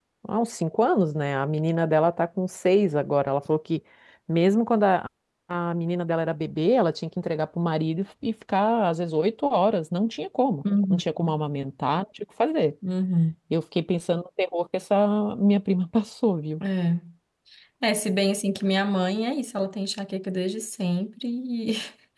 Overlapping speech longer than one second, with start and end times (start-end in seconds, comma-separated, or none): none